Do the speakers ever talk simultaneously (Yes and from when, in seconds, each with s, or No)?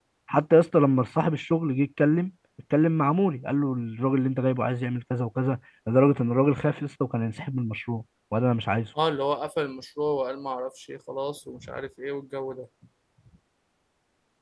No